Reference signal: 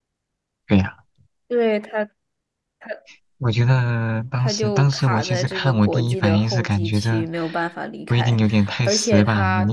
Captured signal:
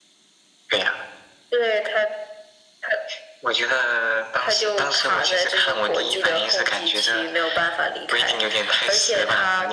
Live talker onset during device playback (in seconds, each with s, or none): none